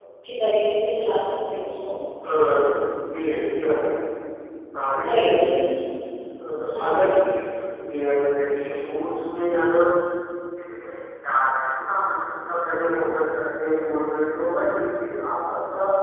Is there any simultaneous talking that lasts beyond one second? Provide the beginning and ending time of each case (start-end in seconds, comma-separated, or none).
none